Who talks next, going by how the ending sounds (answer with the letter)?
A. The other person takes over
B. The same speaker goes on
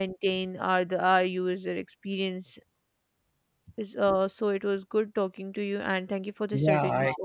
A